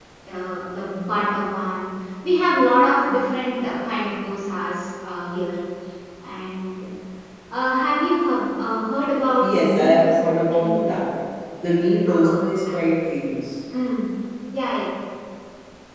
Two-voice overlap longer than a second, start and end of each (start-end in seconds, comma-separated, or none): 9.5-11.0